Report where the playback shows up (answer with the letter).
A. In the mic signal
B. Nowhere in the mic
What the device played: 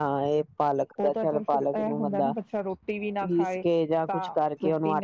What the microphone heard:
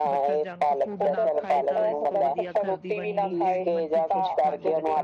A